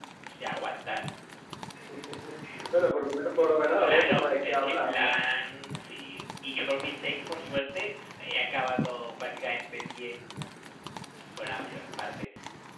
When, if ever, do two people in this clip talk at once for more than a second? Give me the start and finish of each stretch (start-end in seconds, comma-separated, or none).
3.8-5.1